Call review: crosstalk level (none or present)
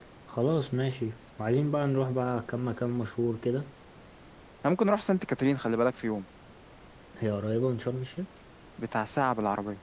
none